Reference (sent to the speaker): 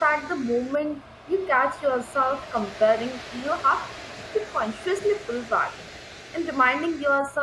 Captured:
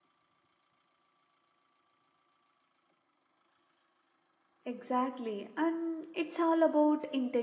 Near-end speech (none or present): present